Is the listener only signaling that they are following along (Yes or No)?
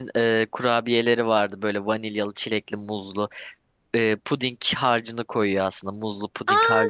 No